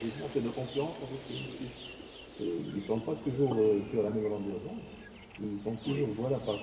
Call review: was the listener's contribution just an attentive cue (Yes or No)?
Yes